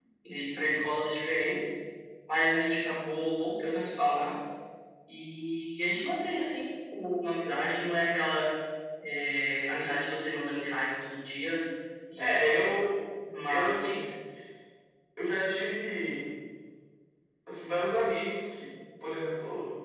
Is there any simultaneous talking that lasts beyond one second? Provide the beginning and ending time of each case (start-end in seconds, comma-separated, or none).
none